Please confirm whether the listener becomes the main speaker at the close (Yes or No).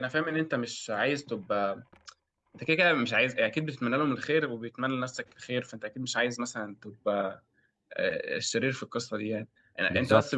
No